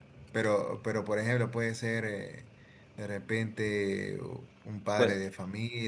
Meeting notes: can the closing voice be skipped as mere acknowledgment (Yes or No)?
Yes